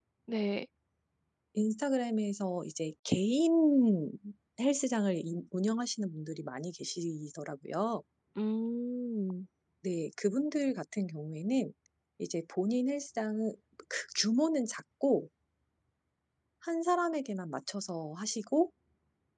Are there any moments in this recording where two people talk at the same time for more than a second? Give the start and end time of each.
none

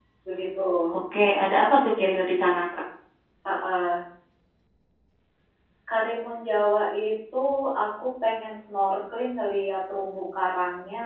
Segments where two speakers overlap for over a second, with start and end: none

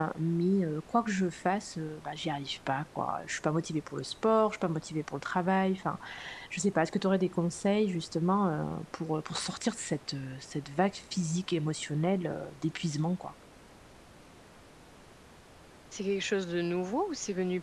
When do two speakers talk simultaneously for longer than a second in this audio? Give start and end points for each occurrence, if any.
none

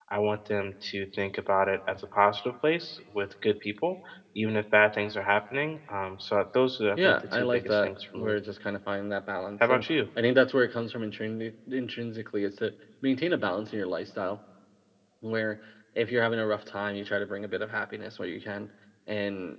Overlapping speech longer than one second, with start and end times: 7.0-8.4

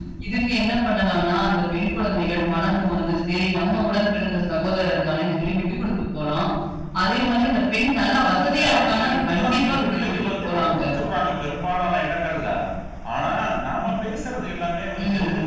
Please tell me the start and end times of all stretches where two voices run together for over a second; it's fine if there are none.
8.1-10.8

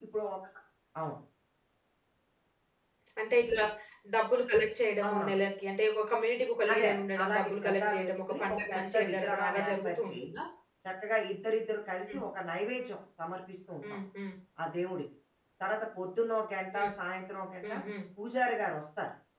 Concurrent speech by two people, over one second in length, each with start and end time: 6.7-10.1

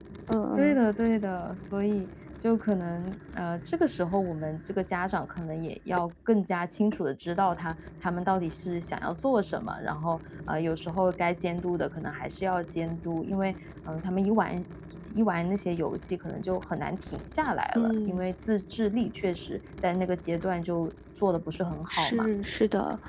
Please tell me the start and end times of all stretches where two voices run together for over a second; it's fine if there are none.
none

